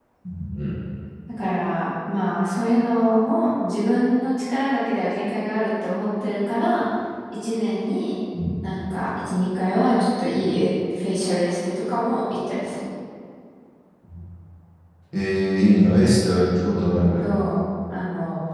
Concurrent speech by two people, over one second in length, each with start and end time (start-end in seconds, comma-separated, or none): none